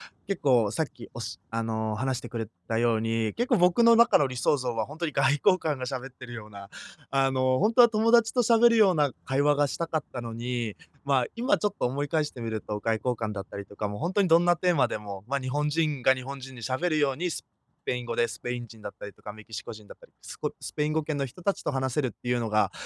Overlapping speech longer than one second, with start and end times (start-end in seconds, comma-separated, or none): none